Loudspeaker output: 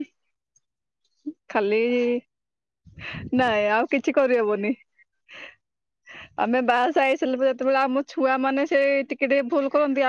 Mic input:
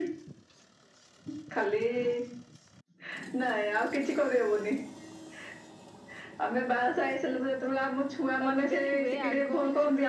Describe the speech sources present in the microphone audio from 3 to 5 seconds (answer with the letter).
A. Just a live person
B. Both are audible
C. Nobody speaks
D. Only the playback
D